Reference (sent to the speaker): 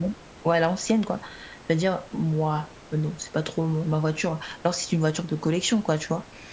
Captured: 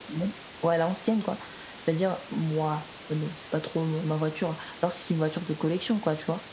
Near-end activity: none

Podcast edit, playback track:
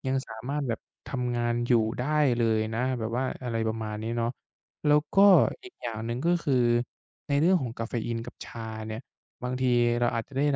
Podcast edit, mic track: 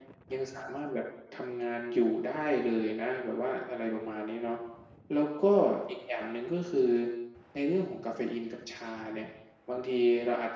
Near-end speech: none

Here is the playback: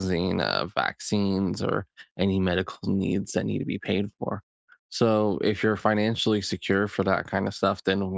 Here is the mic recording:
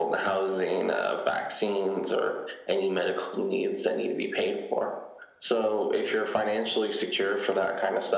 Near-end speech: none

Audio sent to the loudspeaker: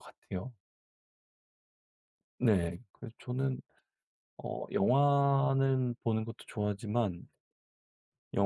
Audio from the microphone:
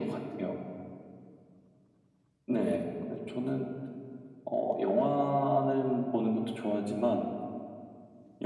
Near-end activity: none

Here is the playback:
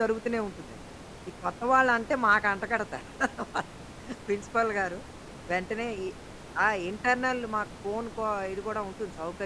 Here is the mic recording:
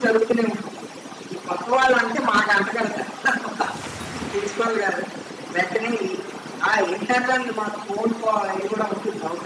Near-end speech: none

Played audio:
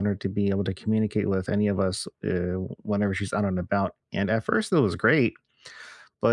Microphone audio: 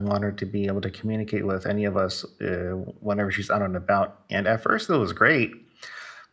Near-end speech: none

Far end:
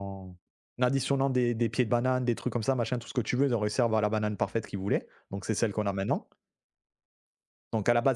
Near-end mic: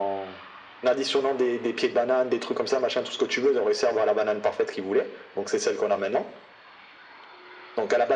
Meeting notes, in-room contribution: none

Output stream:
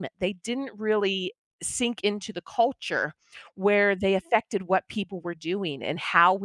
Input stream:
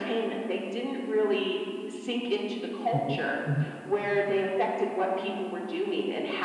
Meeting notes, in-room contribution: present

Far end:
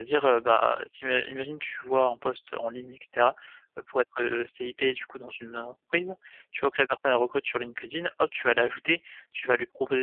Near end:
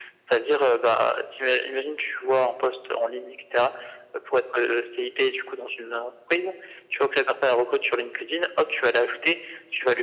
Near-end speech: none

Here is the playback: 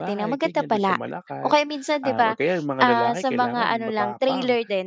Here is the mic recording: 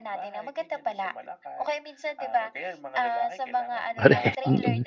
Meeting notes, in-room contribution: present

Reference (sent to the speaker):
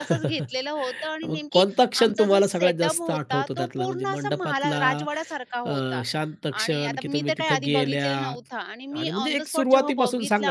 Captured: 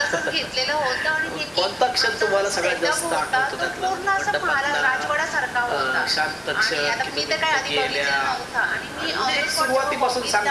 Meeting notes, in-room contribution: none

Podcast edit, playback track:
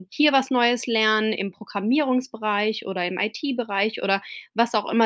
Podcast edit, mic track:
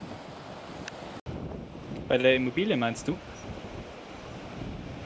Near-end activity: present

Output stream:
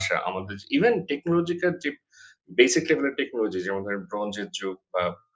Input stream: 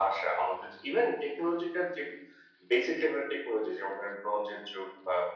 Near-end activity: none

